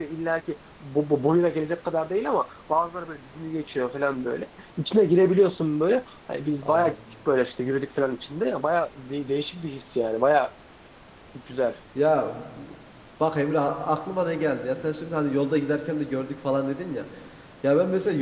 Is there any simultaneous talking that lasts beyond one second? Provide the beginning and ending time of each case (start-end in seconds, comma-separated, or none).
none